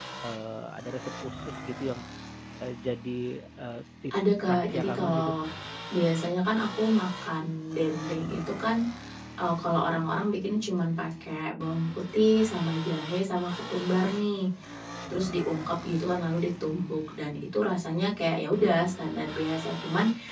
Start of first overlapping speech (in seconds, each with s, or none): 4.1 s